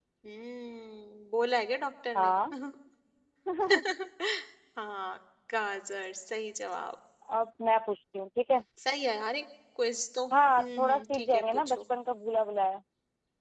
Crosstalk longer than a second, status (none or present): present